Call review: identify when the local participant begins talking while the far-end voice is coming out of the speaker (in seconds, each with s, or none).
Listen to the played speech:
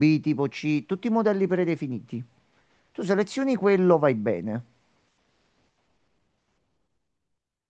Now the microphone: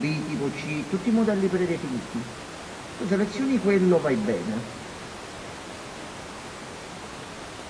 none